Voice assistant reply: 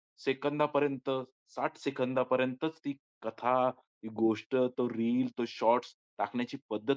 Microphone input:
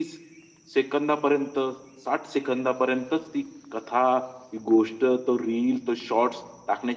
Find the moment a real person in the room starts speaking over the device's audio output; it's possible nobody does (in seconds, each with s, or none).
none